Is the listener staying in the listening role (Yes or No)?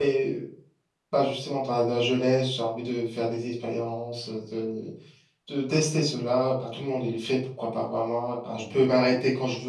Yes